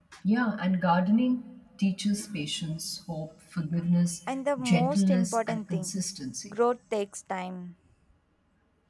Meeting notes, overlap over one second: present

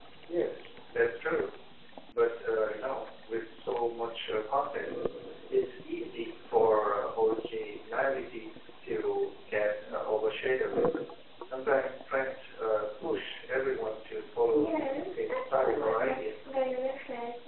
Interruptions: present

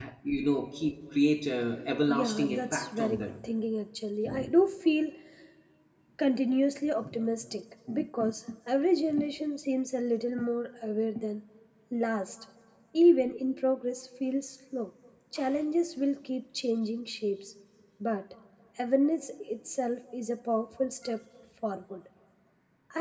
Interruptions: present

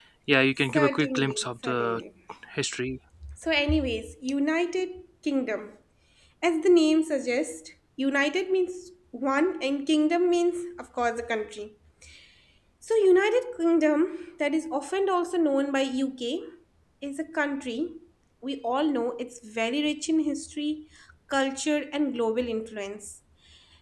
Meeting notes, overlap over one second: present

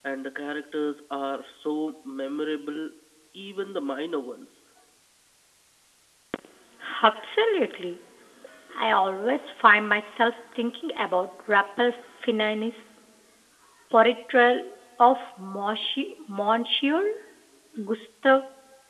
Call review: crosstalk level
none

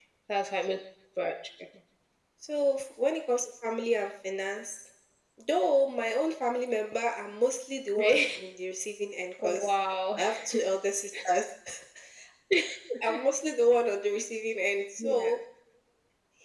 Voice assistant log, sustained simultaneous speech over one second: none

